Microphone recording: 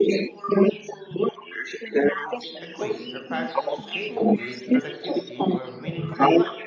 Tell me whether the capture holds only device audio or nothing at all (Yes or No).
No